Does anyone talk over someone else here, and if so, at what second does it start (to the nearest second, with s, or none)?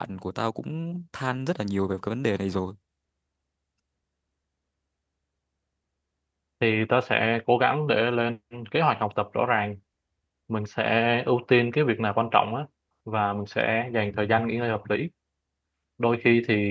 none